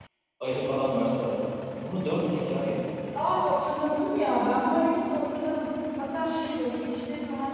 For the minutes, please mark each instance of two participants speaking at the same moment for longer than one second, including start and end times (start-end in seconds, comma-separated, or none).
none